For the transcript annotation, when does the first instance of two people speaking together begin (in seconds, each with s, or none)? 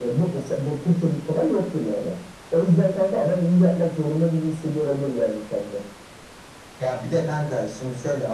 none